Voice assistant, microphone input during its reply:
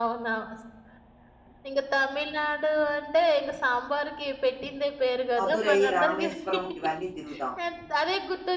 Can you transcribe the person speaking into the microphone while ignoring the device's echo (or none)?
మదురై, రామేశ్వరం ఇవన్నీ తిరుగుదామని.